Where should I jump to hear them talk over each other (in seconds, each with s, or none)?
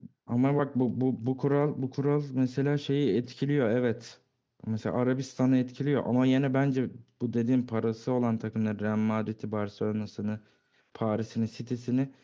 none